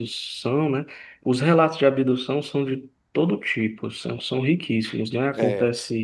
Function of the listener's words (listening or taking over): listening